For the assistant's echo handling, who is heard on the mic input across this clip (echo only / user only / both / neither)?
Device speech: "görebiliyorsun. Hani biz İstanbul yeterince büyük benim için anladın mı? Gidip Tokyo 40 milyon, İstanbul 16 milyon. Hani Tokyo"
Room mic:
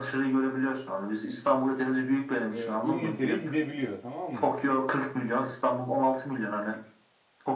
both